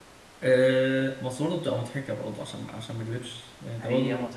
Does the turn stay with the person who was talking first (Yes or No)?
No